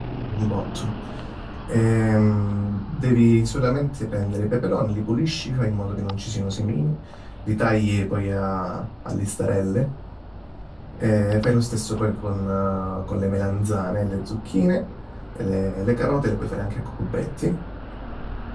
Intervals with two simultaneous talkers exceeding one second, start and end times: none

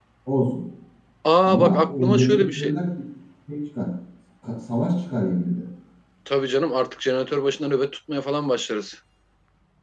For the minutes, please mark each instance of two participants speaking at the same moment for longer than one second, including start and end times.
1.4-2.7

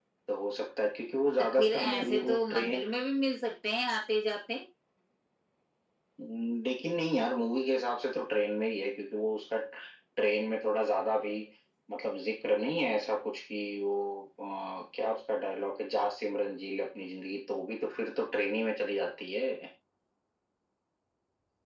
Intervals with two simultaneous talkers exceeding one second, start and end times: 1.6-2.8

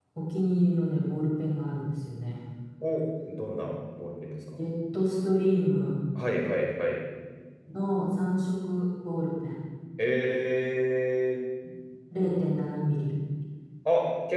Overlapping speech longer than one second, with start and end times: none

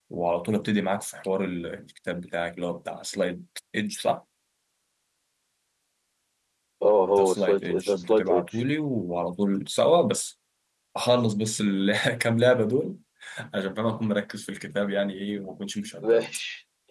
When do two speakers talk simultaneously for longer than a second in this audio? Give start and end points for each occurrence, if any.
7.2-8.4

